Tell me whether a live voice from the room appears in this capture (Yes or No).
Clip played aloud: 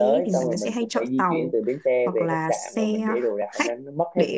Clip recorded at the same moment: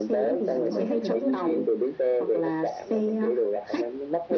Yes